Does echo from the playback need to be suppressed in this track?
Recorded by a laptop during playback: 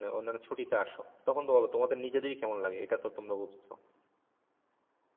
No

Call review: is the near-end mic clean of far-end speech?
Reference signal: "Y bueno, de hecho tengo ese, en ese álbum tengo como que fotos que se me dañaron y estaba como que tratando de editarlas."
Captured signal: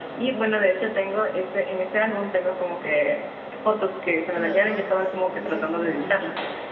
No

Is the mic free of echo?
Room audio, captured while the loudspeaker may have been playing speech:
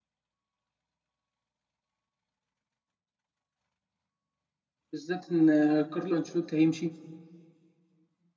Yes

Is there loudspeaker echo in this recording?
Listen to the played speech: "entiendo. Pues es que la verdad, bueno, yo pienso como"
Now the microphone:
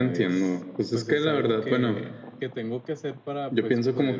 Yes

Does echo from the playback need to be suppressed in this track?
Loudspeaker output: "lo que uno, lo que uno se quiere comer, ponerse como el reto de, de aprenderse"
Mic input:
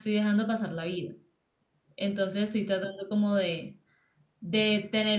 No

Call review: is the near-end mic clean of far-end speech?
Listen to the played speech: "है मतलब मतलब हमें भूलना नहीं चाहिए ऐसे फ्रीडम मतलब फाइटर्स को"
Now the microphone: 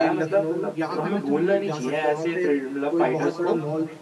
No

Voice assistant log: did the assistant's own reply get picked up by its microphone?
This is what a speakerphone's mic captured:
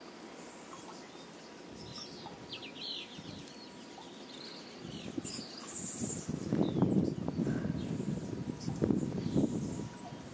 No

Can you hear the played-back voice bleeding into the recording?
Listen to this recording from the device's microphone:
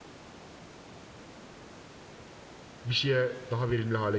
No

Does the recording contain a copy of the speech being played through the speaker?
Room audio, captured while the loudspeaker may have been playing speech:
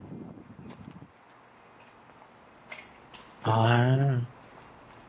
No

